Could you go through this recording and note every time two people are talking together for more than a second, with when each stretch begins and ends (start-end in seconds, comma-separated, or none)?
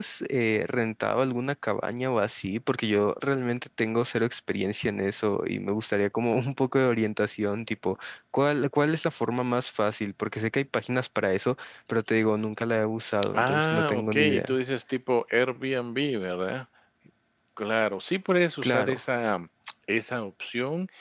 13.3-14.6